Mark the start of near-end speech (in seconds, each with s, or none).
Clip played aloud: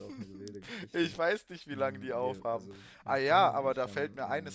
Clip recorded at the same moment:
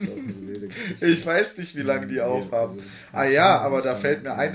none